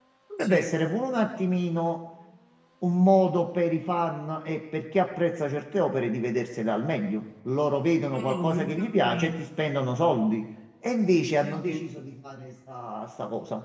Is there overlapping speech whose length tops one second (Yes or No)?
Yes